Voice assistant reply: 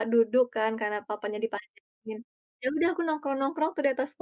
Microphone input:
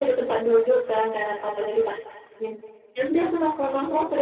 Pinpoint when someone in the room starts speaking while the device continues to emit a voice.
none

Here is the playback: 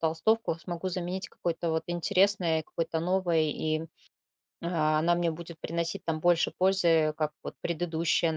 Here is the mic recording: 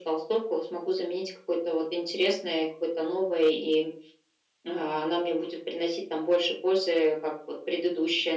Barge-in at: none

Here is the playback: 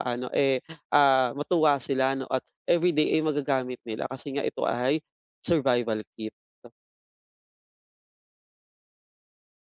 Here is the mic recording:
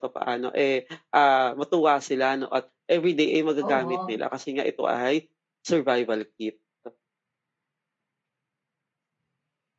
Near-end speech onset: 3.6 s

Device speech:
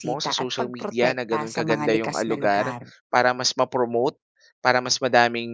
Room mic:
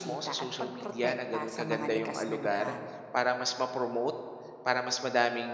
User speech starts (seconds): none

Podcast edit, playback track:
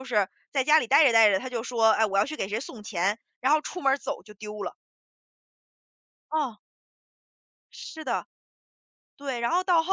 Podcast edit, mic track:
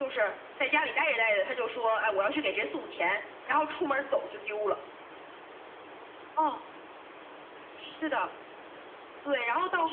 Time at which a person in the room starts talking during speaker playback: none

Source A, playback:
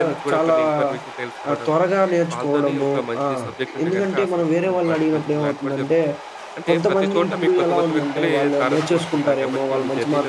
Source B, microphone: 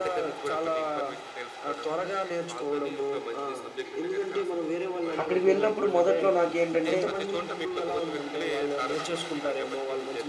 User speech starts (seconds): 5.2 s

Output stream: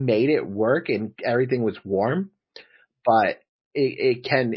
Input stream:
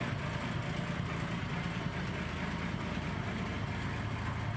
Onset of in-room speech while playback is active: none

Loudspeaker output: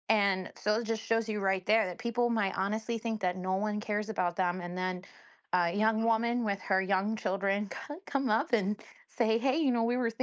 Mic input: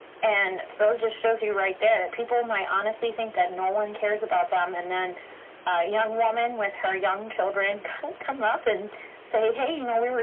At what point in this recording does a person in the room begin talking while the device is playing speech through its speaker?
none

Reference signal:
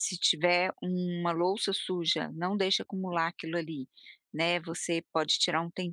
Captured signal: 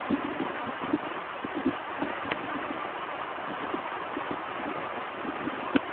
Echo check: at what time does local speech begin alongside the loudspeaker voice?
none

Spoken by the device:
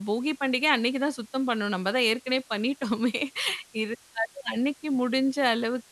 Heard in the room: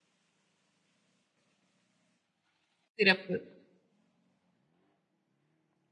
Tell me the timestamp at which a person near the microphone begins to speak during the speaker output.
3.0 s

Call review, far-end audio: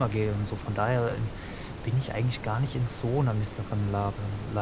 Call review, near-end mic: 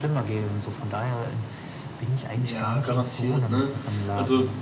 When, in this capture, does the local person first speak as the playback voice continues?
2.4 s

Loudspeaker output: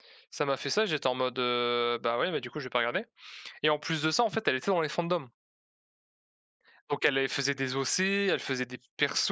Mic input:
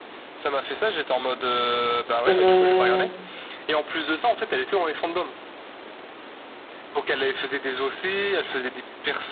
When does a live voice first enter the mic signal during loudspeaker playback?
2.2 s

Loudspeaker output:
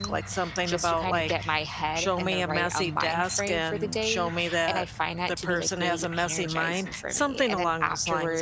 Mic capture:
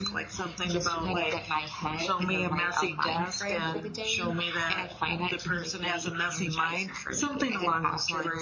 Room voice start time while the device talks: none

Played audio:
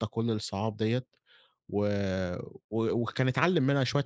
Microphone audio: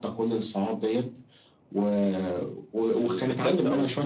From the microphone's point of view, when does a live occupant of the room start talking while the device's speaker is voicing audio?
2.9 s

